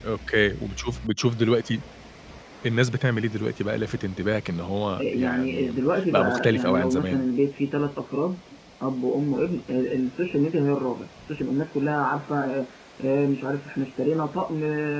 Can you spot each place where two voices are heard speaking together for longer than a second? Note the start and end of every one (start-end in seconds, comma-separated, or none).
5.0-7.2